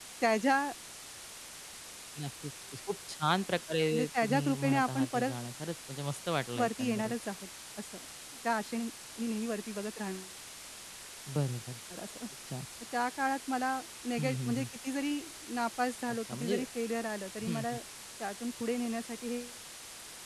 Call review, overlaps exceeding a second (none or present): present